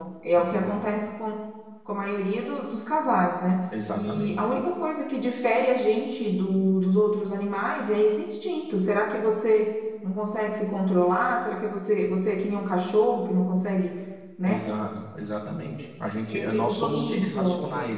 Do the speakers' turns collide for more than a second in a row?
Yes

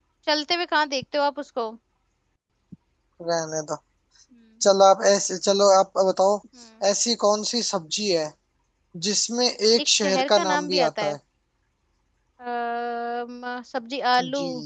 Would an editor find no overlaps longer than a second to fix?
No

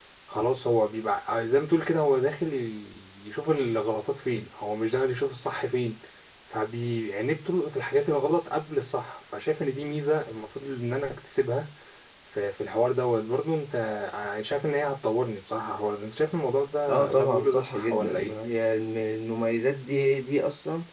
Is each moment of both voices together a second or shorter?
No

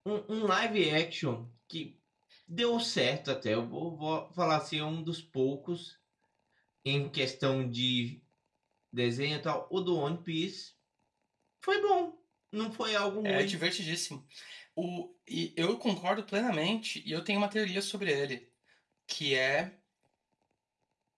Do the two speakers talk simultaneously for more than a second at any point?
No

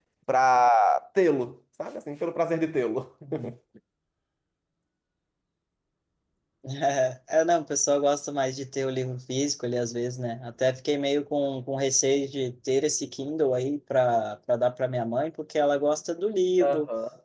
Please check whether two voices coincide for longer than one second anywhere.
No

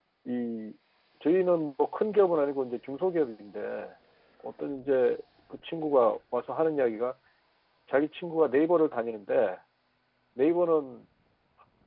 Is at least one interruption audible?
No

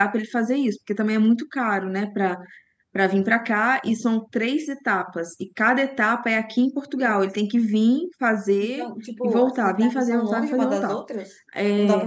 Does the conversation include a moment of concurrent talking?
Yes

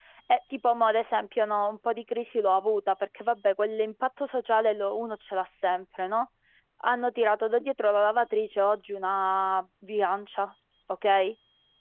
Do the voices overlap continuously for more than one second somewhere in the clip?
No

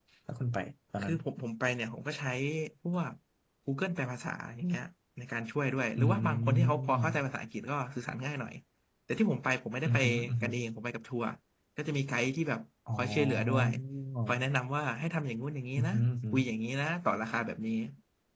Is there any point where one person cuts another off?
Yes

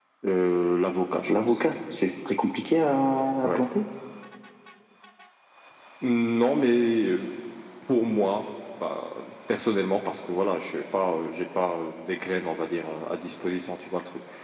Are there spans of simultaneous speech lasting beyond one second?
No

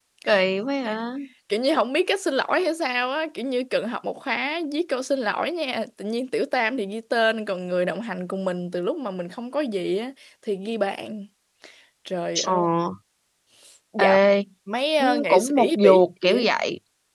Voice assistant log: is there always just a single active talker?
No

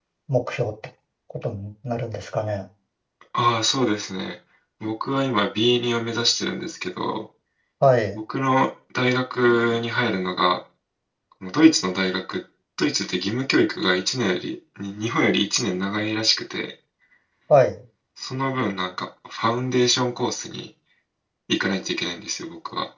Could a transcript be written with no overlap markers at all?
Yes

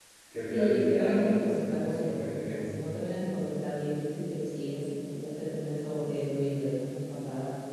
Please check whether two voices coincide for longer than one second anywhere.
Yes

